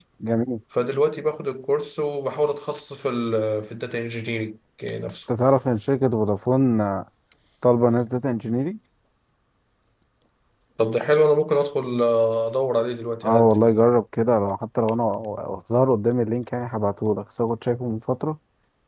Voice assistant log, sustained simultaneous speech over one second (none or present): none